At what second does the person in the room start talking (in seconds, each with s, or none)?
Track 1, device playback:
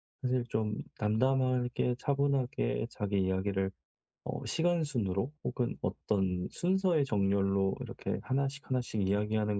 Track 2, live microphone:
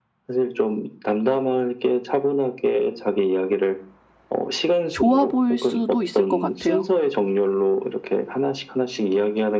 4.9 s